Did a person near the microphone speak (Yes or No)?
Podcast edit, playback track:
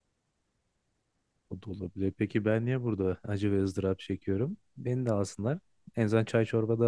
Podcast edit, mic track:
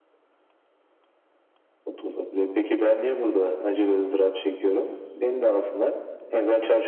No